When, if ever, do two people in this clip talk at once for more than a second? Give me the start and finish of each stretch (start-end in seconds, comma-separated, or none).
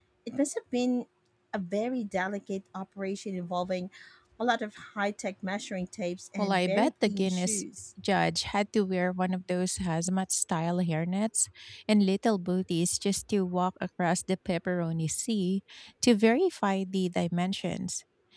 6.4-7.6